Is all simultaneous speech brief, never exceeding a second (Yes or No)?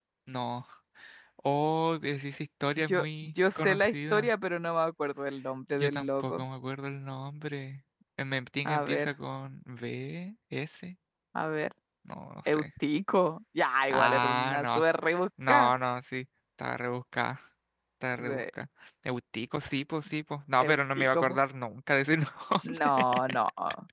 No